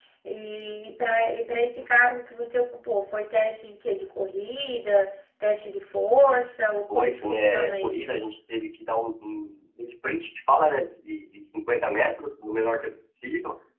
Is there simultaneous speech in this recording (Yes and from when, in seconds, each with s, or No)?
Yes, from 6.9 s